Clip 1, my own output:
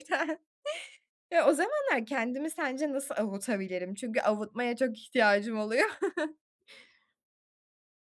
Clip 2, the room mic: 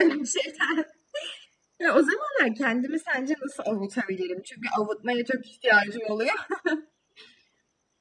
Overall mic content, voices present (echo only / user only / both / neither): echo only